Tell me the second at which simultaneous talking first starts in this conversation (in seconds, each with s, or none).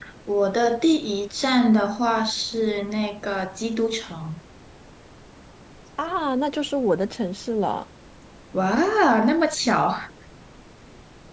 none